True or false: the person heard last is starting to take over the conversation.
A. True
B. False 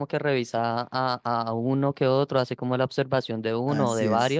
A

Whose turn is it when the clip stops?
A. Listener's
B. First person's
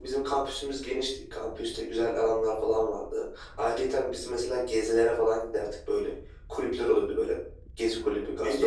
A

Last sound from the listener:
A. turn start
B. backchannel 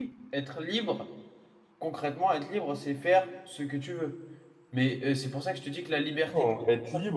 A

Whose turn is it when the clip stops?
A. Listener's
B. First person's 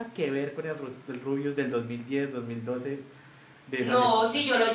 A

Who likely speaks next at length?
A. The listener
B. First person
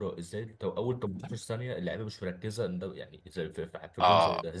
A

